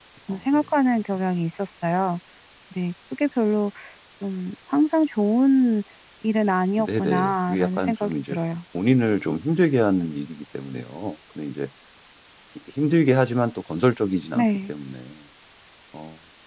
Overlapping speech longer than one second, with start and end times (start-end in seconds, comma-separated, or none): 6.8-8.4